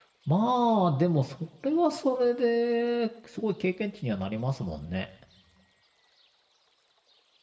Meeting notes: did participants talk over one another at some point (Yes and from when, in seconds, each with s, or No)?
No